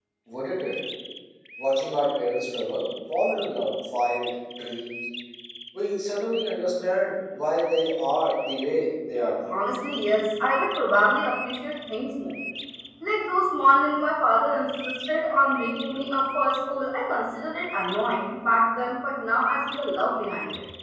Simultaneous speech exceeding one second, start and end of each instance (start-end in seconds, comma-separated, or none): none